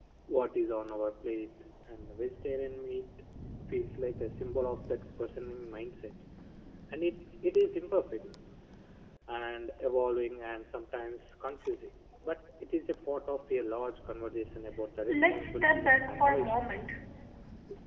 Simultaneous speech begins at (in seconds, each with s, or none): 15.1 s